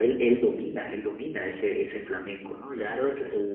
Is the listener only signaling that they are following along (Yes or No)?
No